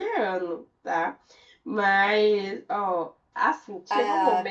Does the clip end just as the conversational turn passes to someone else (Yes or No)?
No